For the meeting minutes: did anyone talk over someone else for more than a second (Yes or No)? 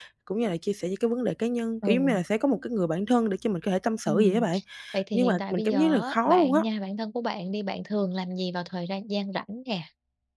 Yes